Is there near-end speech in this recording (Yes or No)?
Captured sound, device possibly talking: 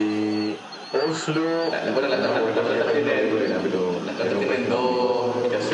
Yes